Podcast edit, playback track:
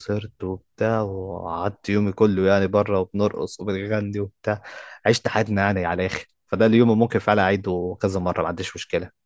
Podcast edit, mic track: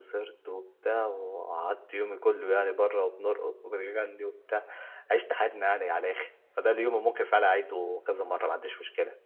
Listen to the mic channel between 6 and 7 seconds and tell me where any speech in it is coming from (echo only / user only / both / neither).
echo only